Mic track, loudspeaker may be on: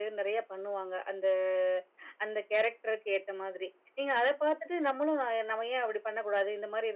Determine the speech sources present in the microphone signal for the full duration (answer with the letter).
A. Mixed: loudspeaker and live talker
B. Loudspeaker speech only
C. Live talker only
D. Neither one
B